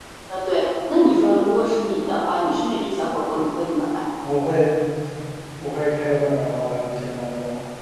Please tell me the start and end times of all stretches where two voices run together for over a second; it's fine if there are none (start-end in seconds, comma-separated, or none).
none